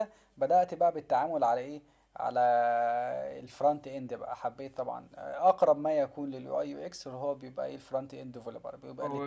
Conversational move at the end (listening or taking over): taking over